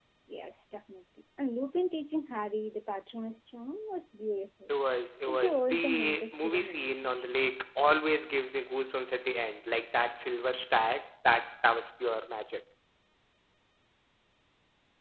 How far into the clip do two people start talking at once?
5 s

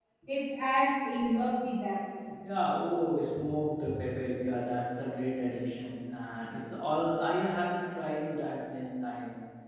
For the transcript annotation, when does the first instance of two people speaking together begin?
none

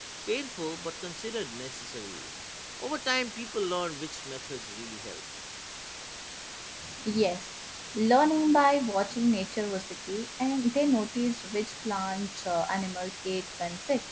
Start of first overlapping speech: none

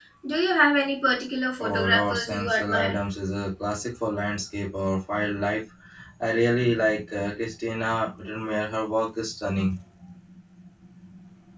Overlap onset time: 2 s

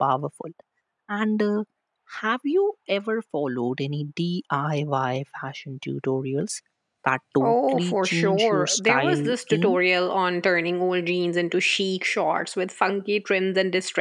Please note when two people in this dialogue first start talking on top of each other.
7 s

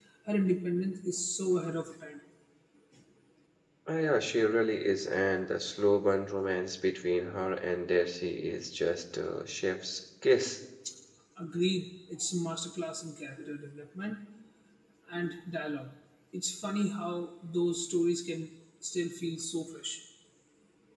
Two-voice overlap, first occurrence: none

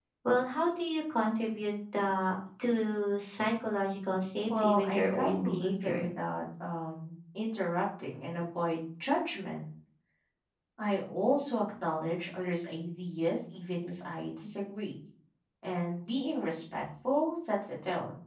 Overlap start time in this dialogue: 4 s

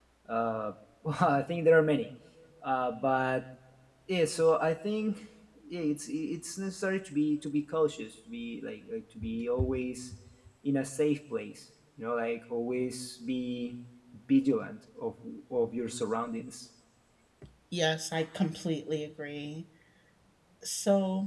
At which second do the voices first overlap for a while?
none

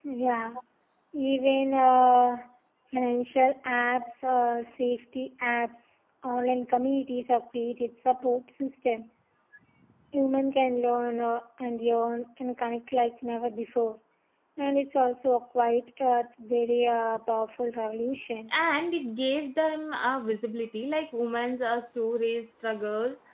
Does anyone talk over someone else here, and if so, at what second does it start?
none

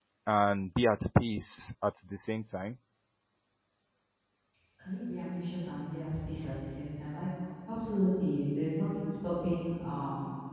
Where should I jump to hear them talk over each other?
none

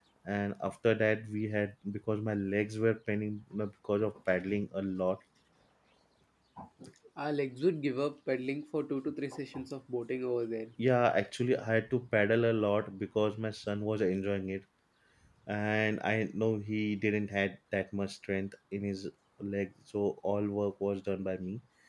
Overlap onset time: none

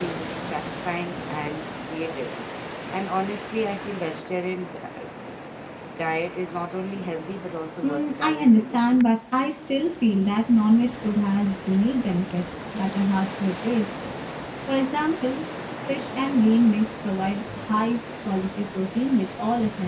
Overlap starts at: 8 s

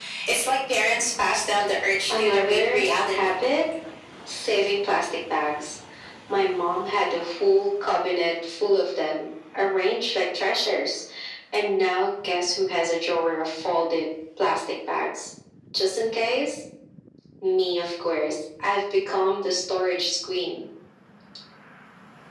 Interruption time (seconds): 2 s

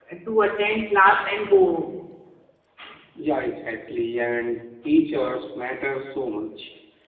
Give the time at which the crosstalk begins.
none

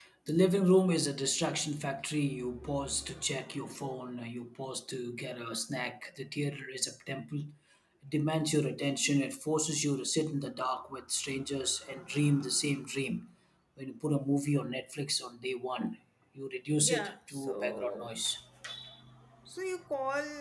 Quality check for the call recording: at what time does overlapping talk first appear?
17 s

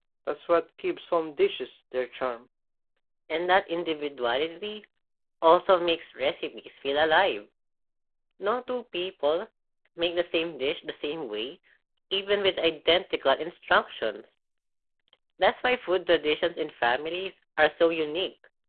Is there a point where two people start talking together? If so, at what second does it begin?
none

